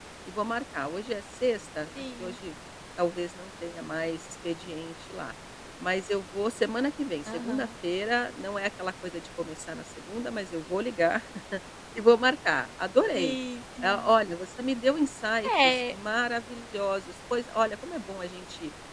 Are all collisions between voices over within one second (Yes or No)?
Yes